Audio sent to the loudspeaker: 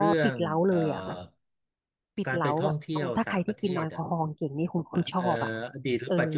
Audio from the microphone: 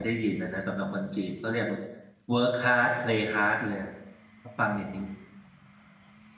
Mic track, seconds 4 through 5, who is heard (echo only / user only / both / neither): user only